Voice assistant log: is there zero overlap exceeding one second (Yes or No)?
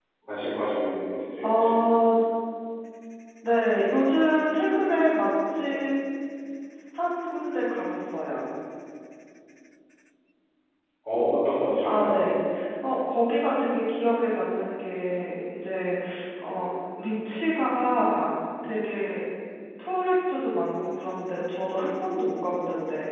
Yes